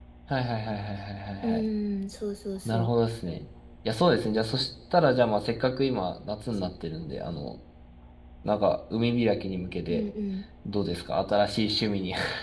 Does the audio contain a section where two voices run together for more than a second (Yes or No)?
No